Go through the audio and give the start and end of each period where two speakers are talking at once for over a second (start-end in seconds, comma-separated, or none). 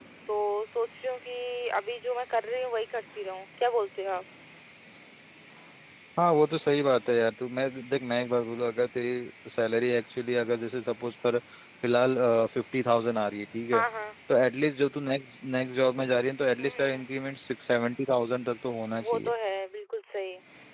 none